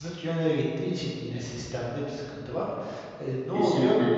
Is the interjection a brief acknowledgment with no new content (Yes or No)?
Yes